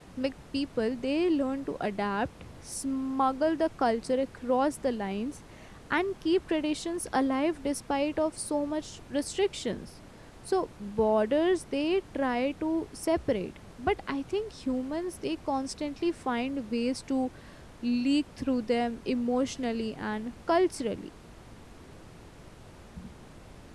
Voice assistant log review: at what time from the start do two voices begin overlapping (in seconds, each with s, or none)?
none